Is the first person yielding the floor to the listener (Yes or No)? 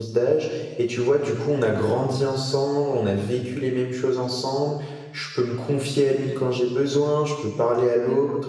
No